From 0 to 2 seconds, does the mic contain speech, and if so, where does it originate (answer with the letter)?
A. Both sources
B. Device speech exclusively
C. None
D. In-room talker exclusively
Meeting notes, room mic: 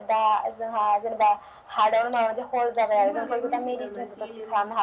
B